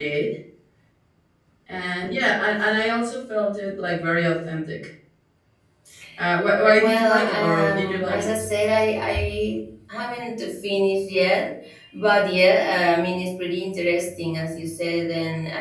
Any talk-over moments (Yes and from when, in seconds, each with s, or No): Yes, from 6.8 s